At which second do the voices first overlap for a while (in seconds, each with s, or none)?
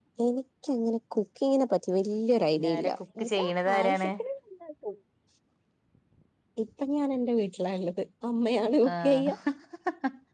2.6 s